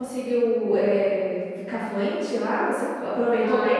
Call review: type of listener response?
taking over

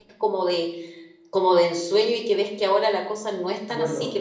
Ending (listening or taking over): listening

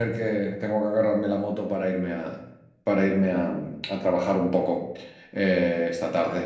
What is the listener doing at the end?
listening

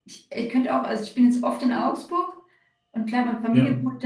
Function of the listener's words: listening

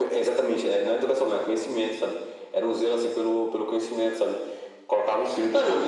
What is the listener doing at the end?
listening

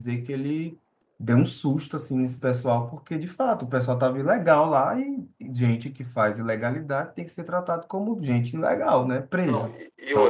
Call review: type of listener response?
taking over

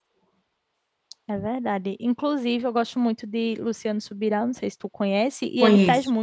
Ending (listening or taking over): listening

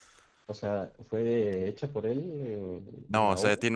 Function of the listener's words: taking over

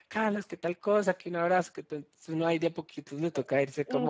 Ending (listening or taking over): taking over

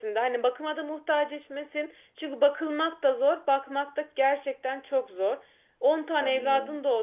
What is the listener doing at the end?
listening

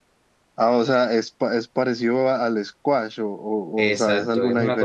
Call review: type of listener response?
taking over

